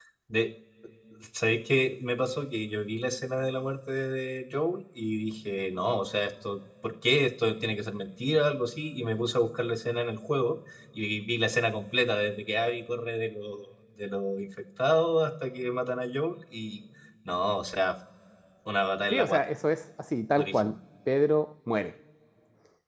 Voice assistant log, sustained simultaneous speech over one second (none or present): none